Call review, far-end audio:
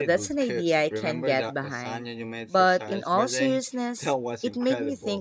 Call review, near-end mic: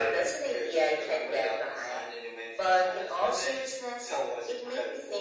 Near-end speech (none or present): none